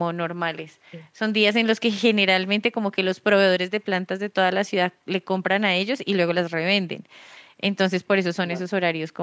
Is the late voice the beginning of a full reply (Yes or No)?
No